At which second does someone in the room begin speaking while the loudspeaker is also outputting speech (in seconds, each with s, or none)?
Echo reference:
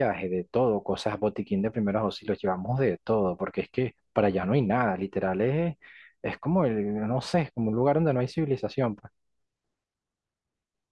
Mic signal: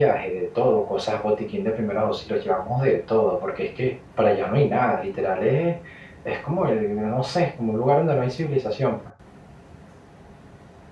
none